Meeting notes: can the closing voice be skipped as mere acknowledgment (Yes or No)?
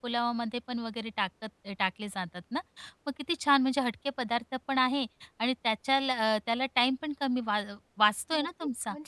No